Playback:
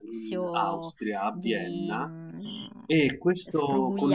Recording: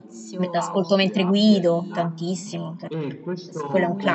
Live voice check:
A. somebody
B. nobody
A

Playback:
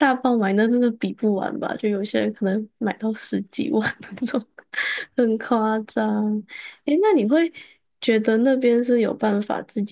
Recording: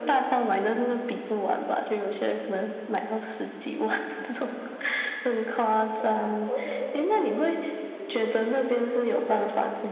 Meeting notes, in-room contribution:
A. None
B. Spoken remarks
B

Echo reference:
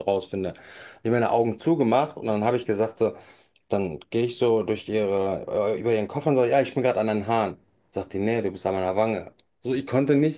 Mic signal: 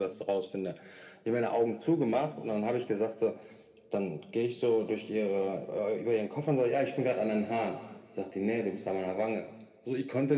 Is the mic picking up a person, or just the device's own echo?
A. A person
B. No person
B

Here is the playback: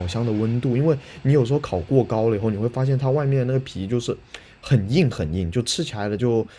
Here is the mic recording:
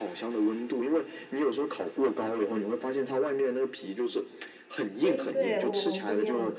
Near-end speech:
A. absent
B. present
B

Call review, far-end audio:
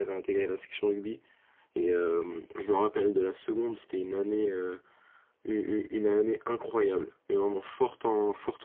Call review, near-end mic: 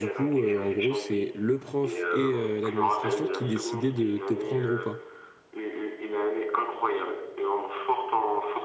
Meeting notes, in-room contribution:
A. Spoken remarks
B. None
A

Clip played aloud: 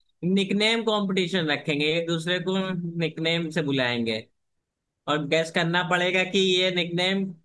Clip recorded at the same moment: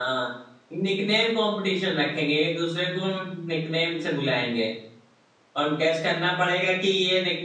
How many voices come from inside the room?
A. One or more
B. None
B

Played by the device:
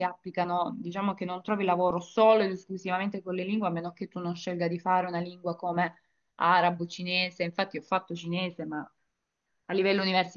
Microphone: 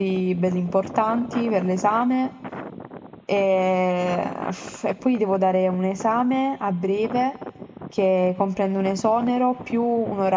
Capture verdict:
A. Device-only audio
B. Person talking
B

